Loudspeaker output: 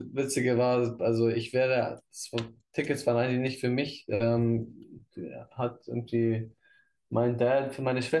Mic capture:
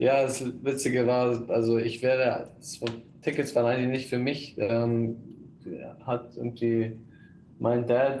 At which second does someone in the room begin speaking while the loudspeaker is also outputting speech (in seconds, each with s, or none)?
none